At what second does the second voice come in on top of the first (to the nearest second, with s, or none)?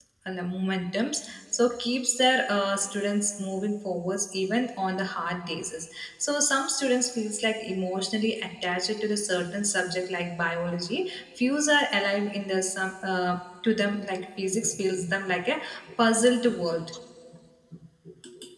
none